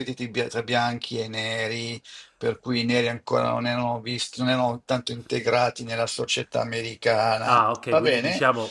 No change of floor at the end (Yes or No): No